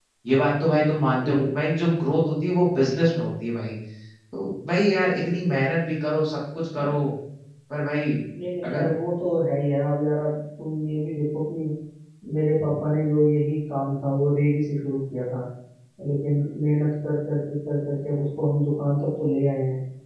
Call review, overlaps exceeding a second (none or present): none